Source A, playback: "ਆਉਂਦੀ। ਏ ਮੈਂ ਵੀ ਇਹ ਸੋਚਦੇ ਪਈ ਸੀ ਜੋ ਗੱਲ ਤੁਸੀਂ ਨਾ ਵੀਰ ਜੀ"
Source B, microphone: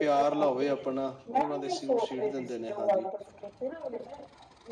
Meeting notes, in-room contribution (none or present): present